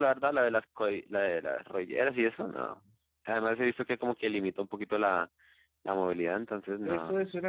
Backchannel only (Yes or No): No